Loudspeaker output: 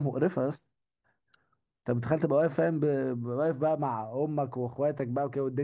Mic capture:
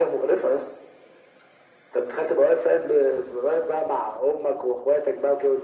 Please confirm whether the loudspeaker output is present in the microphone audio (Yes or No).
Yes